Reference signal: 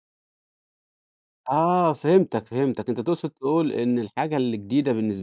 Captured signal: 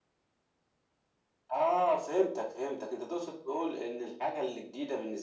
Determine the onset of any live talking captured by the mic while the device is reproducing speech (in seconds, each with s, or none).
none